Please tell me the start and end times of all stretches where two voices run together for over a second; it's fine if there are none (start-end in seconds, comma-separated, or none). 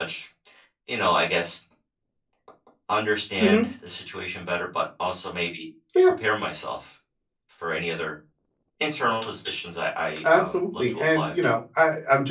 10.2-11.5